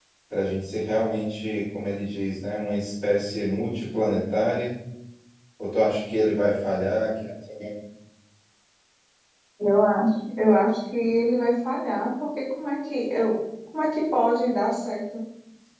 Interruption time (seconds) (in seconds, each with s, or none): none